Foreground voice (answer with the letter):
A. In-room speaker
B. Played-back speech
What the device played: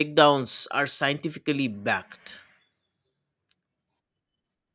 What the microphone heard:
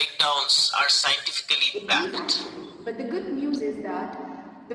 B